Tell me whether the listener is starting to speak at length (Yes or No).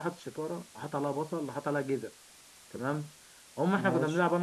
No